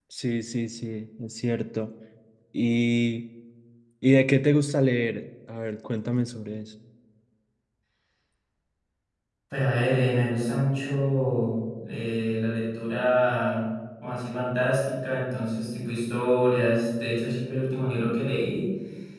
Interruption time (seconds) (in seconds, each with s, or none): none